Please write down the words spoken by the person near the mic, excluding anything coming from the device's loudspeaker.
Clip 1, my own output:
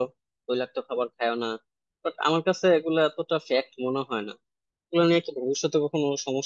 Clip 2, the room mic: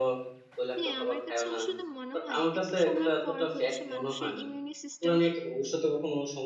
হ্যাঁ আমার কাছে আসলে মনে হয় একটা সময় পর হচ্ছে মানুষের ইমিউনি সিস্টেম

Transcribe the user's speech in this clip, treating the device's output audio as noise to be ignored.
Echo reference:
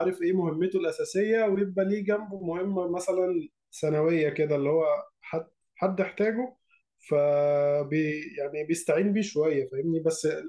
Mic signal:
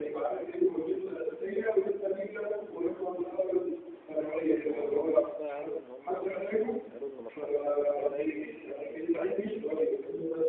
ما مرضوش بقى قالوا ان هم يعني قالوا ان مشروع التخرج ده لازم يكون

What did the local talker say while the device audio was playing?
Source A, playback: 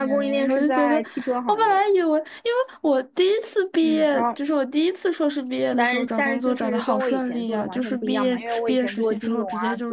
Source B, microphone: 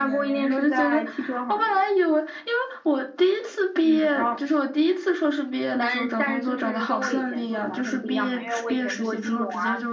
none

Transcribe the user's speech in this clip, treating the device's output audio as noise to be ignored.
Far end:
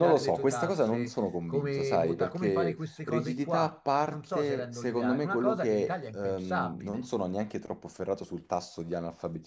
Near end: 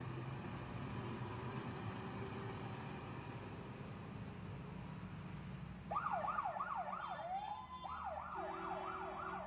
none

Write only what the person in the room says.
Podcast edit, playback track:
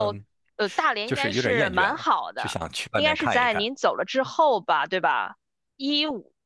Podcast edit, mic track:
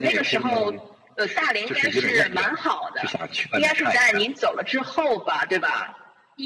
none

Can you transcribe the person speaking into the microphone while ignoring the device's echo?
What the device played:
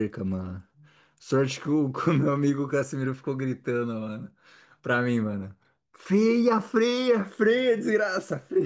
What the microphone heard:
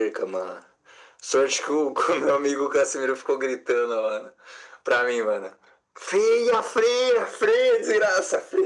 none

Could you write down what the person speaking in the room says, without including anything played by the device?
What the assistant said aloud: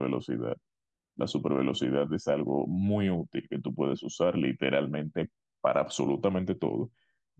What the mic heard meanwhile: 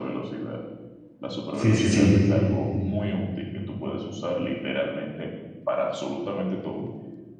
sí, sí, sí.

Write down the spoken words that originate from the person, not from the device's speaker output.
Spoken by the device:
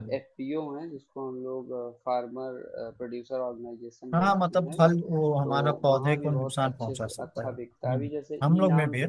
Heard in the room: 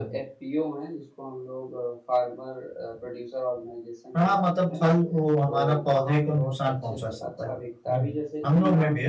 none

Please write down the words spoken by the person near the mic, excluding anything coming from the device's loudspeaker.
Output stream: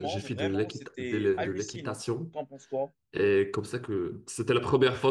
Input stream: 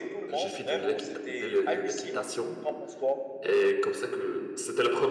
none

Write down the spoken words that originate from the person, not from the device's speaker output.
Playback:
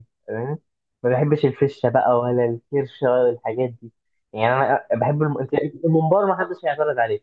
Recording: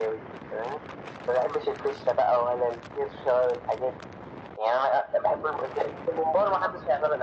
none

